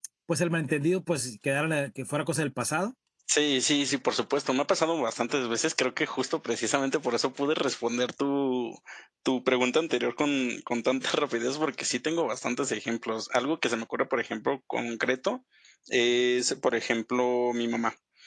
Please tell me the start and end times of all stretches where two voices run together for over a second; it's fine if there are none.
none

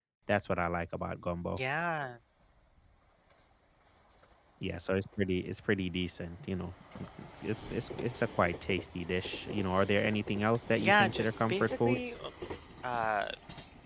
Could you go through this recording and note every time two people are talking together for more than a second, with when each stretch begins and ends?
10.8-12.2

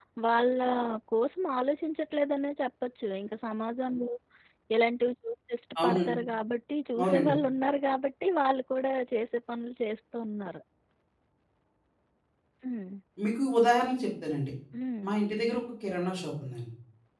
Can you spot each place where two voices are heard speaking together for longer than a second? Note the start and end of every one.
none

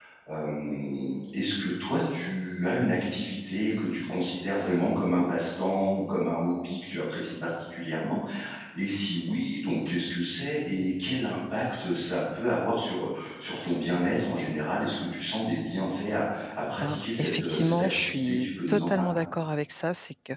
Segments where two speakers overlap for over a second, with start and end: 16.8-19.2

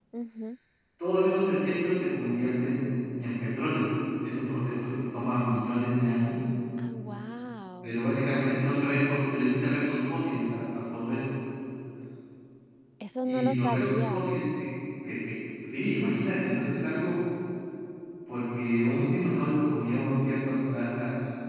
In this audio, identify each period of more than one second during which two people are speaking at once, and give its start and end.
13.2-14.4

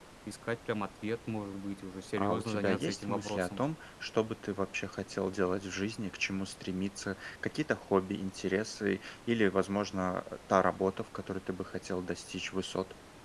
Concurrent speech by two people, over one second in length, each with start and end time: 2.1-3.6

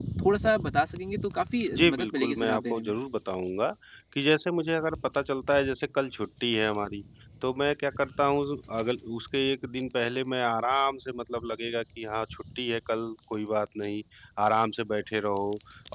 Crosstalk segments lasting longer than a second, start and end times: 1.7-2.9

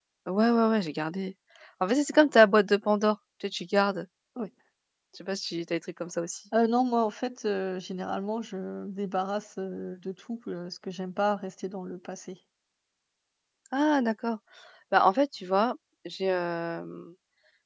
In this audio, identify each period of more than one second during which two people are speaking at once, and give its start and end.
none

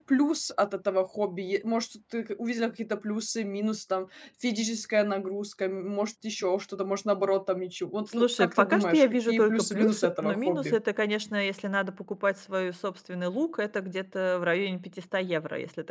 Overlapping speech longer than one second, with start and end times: 8.1-10.8

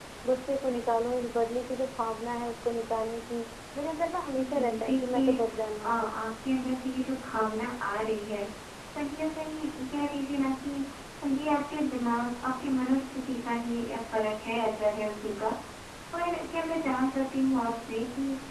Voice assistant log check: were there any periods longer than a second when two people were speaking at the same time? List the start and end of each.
4.5-6.1

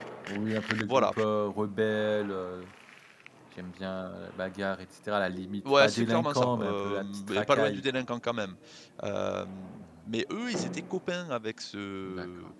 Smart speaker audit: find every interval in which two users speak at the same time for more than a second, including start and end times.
5.7-7.9

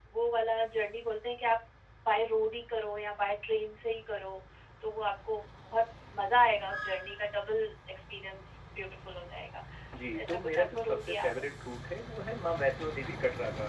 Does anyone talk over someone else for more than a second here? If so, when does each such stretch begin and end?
10.1-11.3

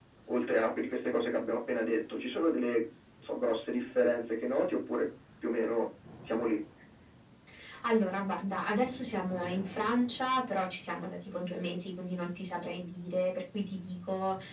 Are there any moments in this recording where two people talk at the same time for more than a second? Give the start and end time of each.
none

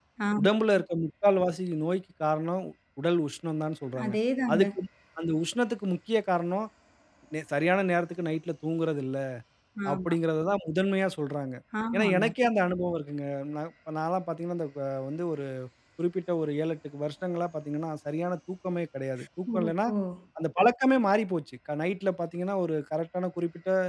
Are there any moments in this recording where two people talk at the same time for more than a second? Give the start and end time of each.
none

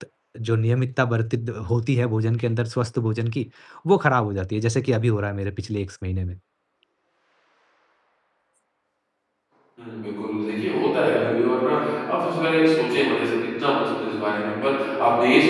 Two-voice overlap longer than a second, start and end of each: none

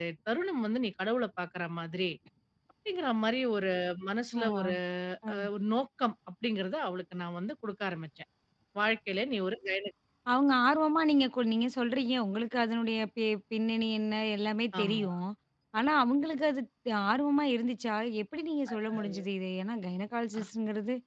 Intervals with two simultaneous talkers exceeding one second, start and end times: none

